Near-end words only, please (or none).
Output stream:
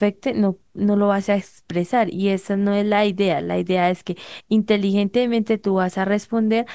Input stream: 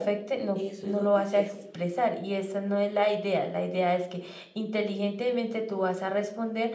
Eso es lo que quiero.